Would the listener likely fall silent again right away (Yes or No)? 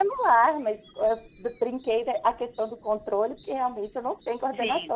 No